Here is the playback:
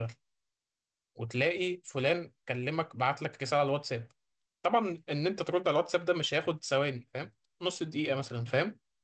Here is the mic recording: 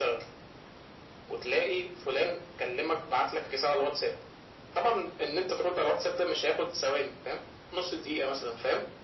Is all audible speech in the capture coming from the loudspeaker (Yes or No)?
Yes